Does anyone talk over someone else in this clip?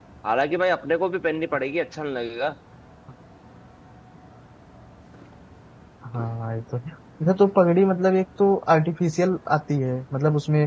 No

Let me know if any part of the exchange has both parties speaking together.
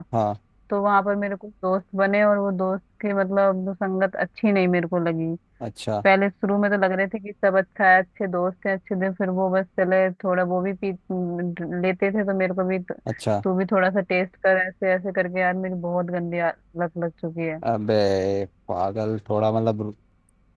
No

